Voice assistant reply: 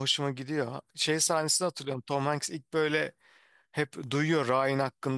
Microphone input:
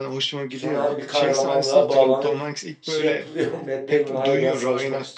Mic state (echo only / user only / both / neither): both